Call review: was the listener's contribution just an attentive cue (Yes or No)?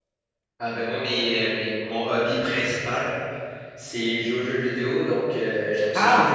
Yes